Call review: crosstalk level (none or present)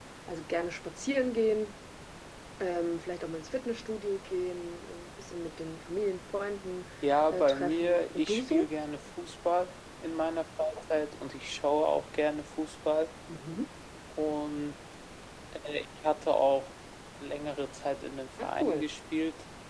present